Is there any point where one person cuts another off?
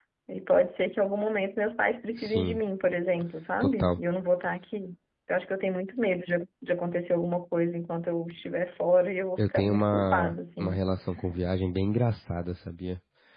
Yes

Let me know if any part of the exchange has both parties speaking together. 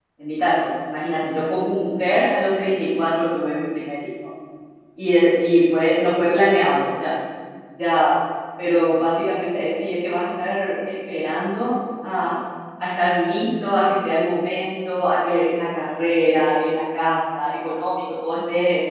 No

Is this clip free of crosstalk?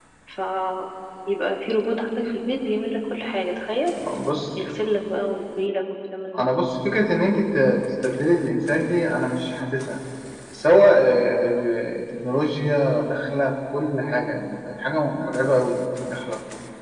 Yes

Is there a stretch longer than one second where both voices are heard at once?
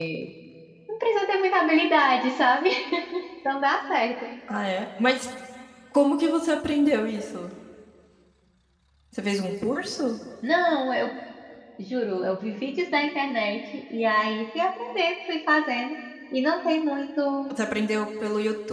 No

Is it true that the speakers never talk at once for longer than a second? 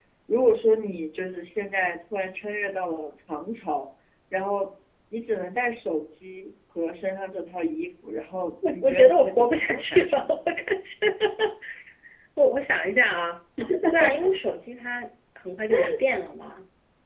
No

